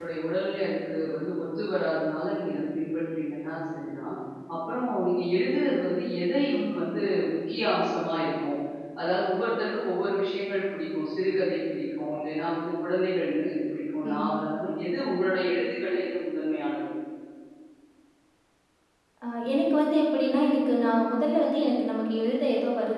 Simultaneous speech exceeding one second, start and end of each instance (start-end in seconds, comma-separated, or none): none